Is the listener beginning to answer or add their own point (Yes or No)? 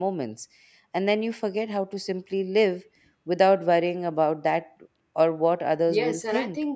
Yes